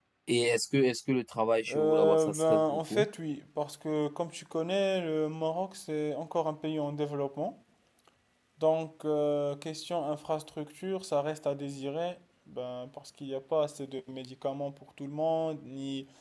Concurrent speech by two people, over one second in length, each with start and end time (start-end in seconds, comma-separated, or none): 1.7-3.0